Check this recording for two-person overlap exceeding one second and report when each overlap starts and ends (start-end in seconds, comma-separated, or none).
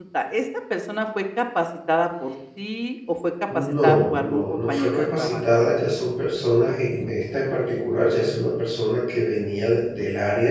3.6-5.4